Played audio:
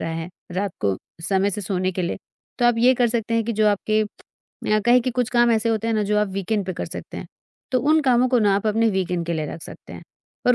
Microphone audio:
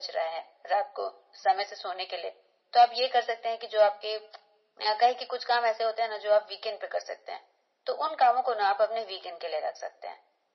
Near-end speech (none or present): none